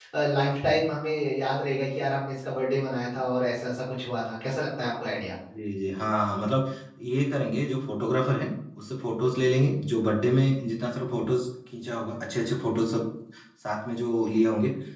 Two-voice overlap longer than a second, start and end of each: none

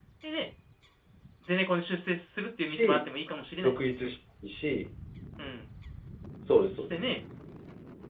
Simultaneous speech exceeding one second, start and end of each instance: none

